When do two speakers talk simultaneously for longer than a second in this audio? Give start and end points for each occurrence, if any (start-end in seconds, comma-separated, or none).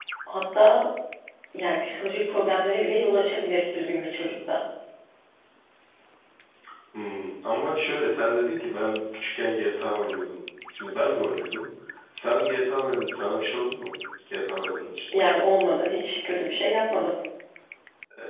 none